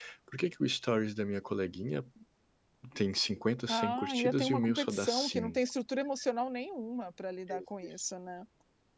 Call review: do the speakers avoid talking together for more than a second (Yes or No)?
No